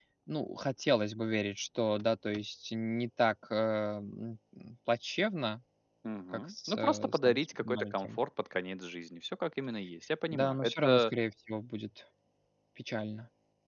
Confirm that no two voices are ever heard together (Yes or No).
No